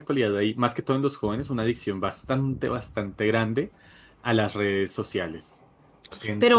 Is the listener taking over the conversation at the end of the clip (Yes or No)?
Yes